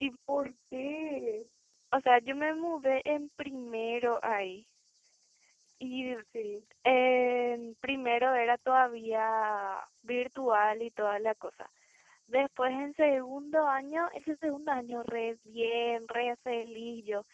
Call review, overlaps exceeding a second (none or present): none